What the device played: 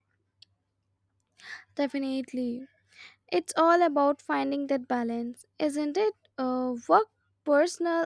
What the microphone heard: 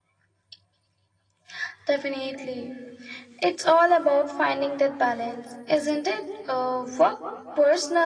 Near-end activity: none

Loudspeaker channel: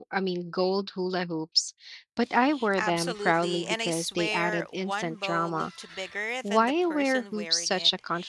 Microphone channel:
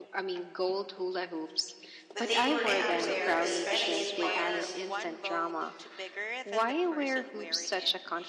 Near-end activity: present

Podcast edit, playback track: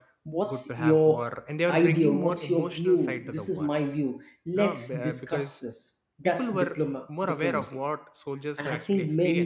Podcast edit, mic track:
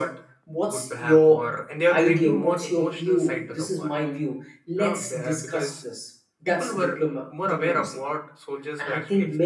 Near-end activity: none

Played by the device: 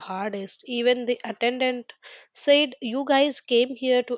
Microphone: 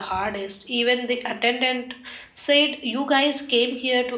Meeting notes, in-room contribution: none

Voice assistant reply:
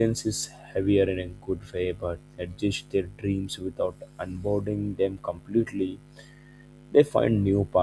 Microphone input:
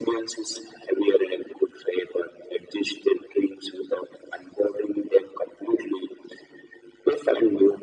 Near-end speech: none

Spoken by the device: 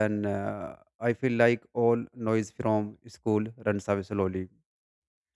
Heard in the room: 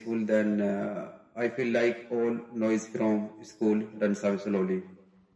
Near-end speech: none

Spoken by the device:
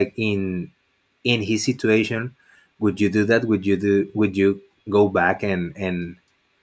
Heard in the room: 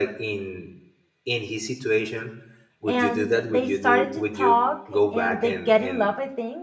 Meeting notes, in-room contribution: present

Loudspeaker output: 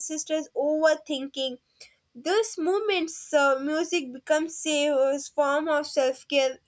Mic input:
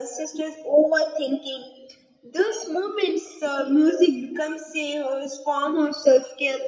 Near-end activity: none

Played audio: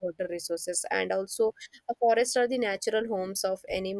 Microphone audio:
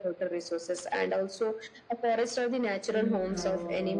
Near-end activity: present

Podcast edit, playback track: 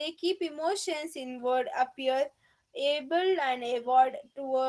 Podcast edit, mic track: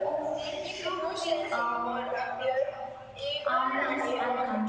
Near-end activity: present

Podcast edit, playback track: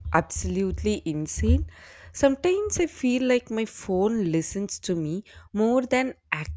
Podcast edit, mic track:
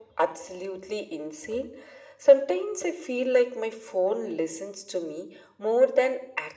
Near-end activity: none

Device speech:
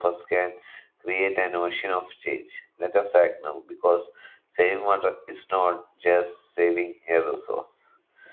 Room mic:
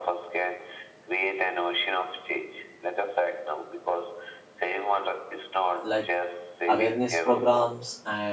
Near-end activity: present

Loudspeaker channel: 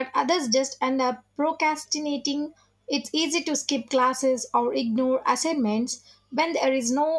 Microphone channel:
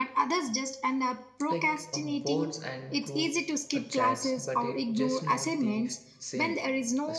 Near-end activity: present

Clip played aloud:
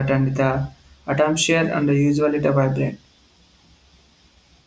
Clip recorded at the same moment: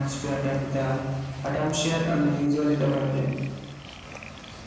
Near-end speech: none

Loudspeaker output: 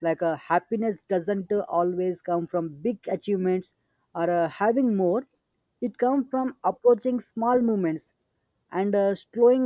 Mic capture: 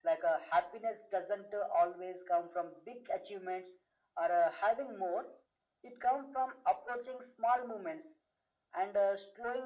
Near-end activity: none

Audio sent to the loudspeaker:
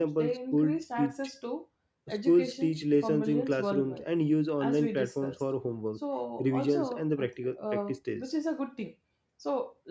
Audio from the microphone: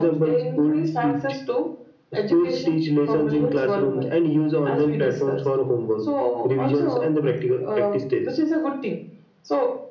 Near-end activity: none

